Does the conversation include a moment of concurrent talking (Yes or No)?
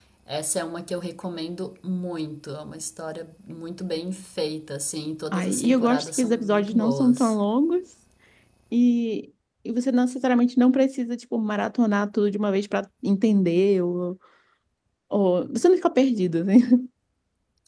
Yes